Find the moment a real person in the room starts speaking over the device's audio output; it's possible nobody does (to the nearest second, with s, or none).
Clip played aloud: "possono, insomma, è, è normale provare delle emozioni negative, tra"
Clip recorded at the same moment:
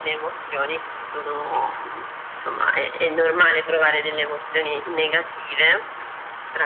none